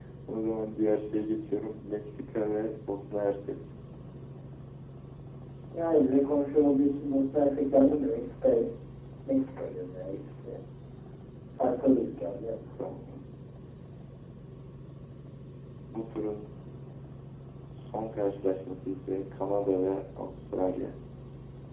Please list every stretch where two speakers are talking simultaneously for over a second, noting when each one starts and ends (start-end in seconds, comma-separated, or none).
none